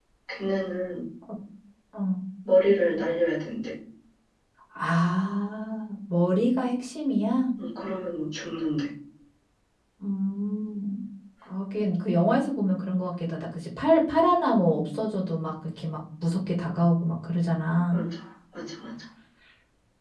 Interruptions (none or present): none